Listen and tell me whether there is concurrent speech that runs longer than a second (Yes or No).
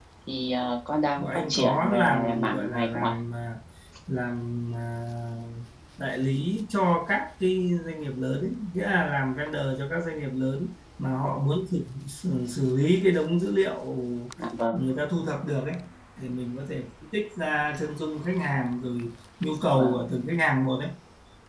Yes